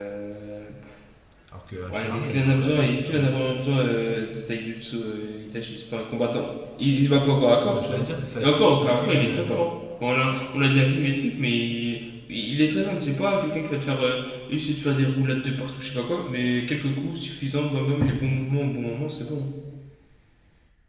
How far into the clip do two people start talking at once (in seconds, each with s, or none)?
1.9 s